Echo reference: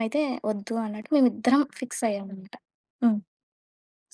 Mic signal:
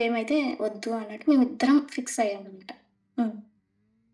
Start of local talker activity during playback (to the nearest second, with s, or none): none